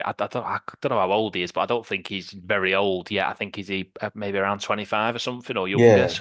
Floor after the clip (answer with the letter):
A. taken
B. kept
B